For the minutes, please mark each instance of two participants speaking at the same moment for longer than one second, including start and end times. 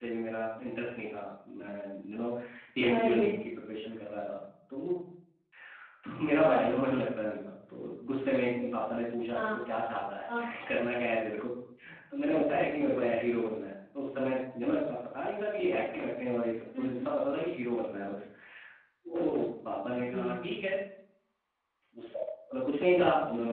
none

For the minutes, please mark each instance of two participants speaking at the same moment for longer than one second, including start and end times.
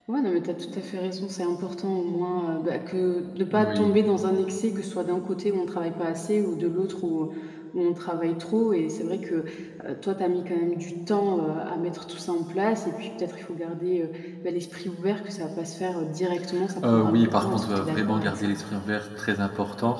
16.9-18.5

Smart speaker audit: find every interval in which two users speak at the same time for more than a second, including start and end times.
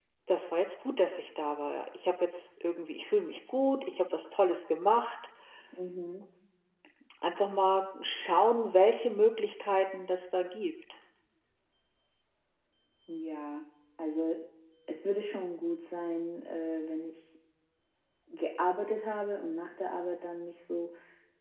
none

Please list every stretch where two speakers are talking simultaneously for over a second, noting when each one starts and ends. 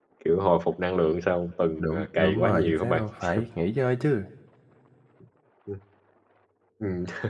1.8-3.0

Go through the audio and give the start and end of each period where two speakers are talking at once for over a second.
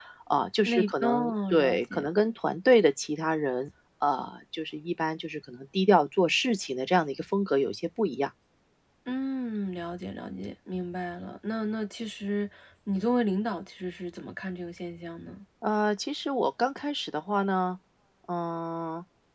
0.7-2.1

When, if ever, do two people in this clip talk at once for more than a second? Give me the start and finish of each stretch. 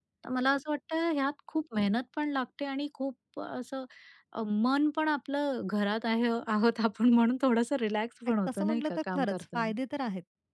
8.5-9.7

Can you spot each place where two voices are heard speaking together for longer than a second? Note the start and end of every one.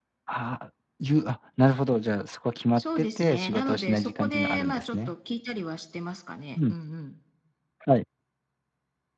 2.8-5.1

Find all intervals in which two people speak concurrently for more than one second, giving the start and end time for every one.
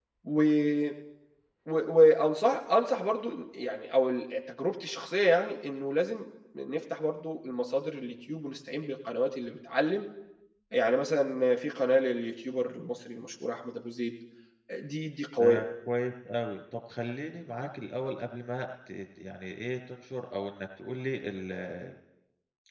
none

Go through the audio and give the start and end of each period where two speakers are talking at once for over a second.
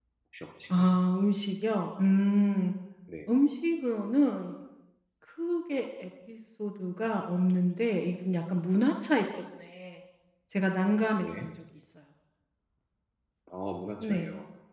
none

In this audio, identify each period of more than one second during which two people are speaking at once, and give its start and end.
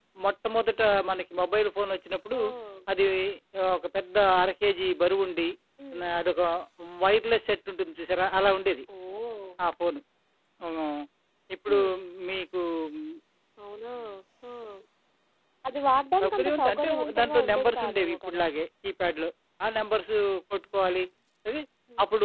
16.2-18.4

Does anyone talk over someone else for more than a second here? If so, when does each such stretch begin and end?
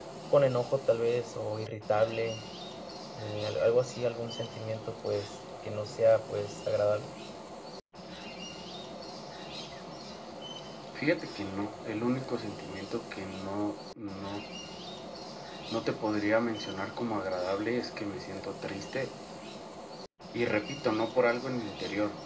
none

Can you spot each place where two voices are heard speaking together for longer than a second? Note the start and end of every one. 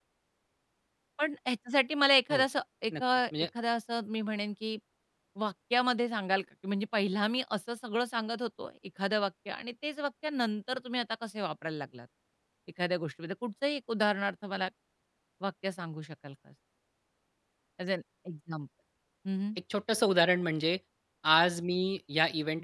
none

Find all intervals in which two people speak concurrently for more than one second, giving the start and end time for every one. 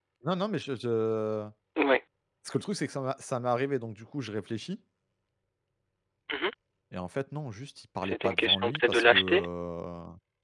8.0-9.4

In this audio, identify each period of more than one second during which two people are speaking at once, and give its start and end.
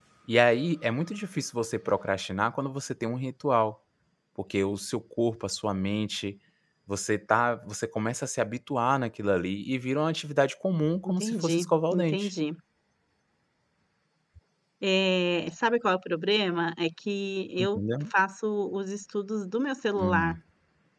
11.0-12.3

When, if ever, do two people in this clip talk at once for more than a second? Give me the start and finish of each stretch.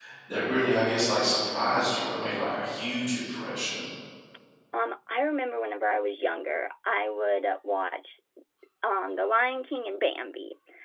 none

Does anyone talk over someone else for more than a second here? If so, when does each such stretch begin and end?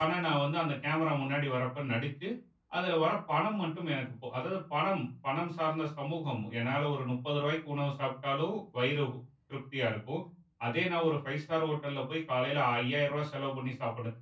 none

